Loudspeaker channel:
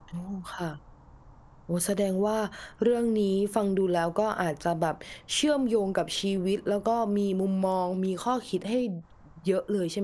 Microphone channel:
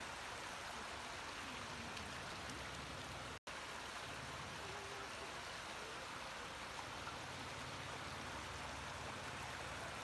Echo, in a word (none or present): none